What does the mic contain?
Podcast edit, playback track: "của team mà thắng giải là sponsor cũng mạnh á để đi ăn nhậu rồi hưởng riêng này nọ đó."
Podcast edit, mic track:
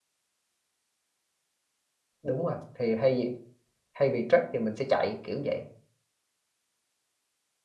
user only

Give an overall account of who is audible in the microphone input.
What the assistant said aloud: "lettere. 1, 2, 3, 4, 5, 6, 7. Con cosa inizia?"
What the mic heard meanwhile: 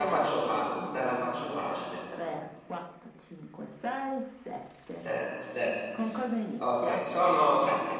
both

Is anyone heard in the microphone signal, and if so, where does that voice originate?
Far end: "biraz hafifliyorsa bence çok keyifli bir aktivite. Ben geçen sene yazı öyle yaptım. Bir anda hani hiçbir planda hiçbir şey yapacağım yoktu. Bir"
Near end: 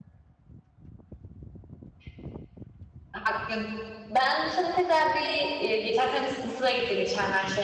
user only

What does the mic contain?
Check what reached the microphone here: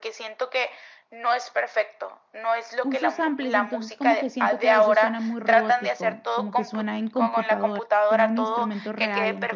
both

